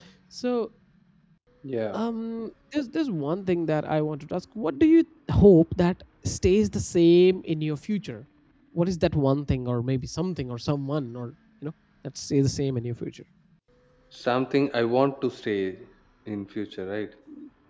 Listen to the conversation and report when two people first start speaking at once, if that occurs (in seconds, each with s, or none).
none